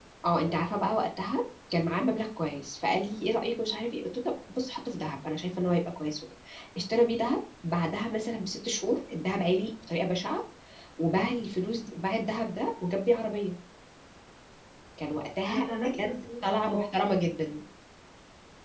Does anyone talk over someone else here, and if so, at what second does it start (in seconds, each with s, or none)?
15.5 s